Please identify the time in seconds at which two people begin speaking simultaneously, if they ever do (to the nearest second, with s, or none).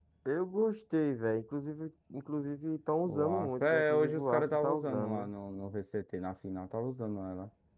3 s